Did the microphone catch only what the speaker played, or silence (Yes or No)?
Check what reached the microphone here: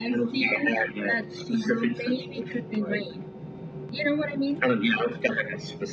Yes